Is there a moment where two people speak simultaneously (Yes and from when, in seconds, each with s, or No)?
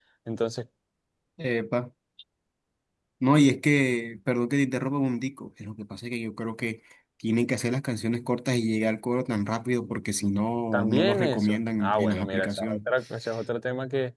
Yes, from 10.7 s